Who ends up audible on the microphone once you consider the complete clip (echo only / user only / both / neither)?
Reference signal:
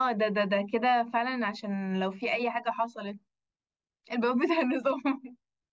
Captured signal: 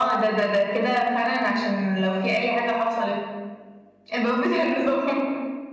echo only